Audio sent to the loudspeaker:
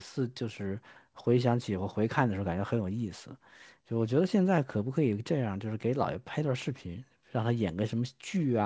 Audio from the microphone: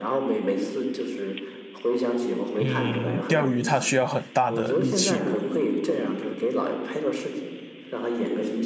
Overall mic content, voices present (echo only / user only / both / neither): both